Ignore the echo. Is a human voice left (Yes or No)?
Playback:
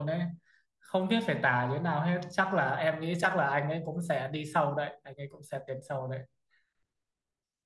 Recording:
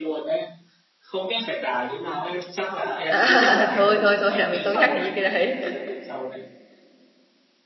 Yes